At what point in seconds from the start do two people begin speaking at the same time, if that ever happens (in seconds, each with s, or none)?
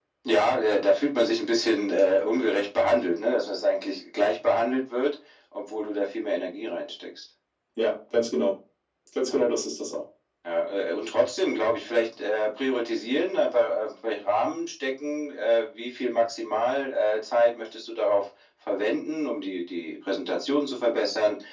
none